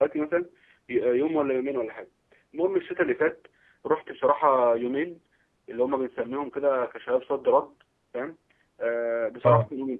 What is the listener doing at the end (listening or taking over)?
listening